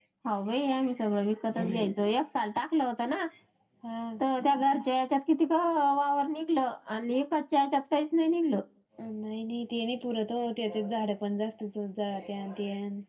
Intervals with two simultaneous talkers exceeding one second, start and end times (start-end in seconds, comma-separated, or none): none